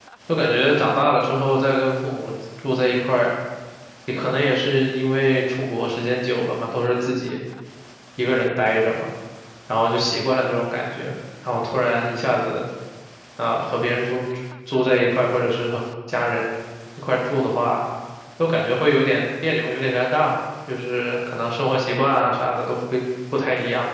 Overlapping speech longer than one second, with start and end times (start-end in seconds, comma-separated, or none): none